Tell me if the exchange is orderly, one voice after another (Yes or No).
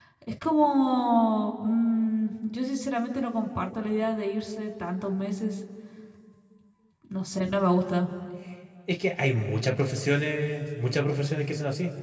Yes